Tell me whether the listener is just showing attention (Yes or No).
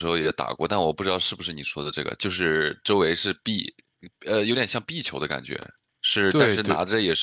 Yes